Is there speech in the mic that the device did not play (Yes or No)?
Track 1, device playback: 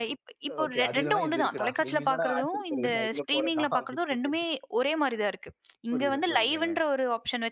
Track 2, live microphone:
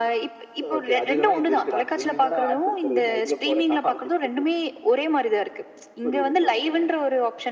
No